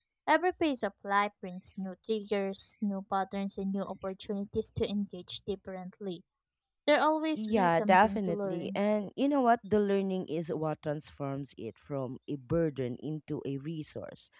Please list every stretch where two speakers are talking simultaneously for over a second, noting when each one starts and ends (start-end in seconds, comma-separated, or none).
7.3-8.8